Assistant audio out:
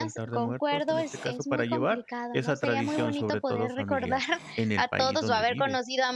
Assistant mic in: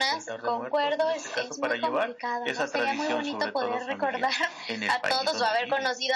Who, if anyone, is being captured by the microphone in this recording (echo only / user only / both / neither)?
echo only